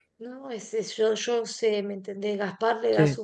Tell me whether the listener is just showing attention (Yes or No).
Yes